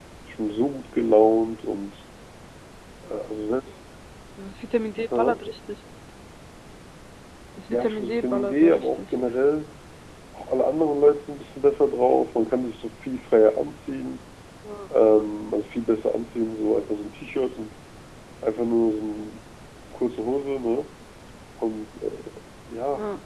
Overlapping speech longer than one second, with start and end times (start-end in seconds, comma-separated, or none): 7.7-9.0